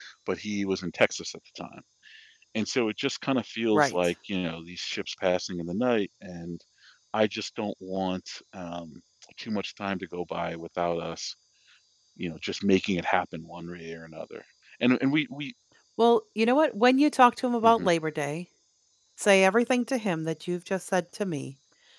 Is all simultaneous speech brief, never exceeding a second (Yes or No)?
Yes